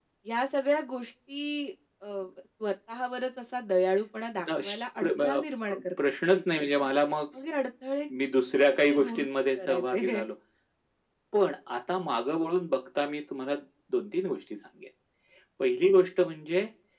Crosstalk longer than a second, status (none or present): present